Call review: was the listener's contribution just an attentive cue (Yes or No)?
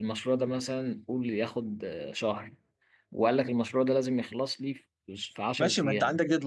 No